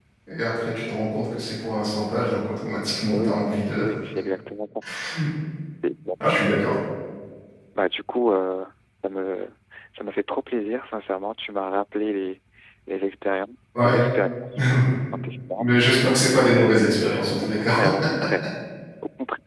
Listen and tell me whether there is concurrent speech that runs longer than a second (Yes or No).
No